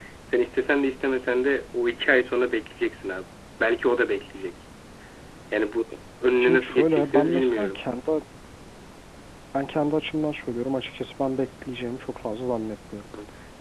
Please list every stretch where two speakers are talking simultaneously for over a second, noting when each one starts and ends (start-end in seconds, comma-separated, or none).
6.4-7.8